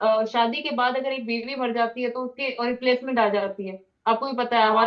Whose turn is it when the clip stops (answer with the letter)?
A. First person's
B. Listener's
B